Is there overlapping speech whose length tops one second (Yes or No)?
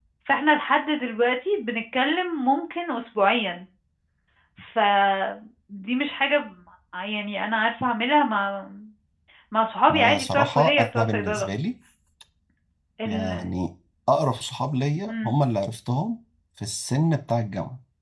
Yes